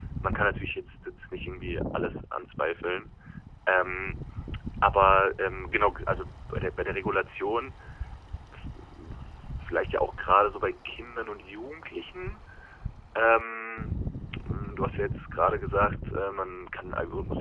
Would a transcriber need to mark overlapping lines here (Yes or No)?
No